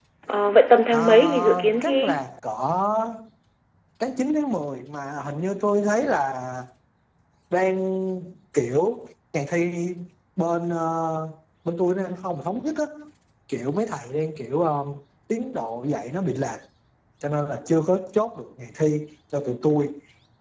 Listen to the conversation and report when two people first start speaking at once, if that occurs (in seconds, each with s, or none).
0.9 s